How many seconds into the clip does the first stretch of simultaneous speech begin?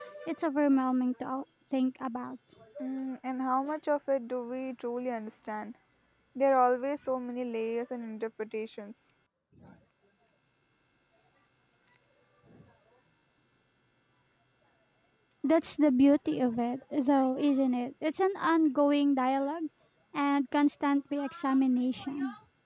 none

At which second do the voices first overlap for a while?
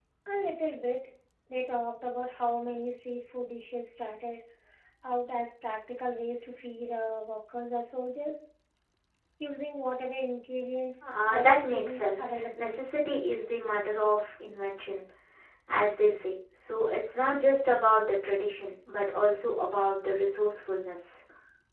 11.0 s

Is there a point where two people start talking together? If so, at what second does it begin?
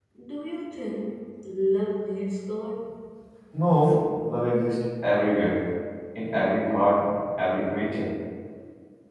none

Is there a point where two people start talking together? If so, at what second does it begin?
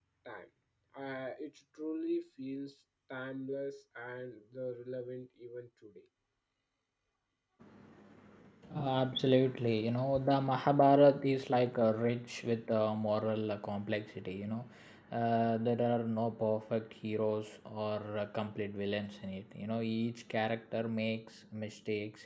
none

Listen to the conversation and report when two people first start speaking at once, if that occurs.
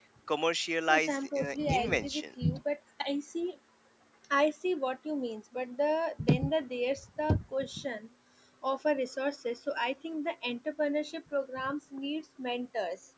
0.9 s

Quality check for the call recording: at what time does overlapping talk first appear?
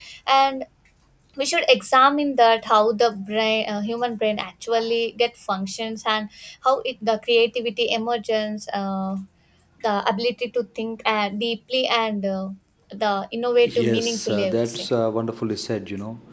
13.6 s

